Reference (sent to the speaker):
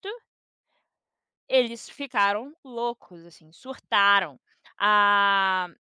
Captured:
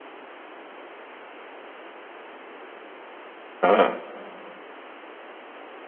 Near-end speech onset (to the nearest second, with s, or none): 4 s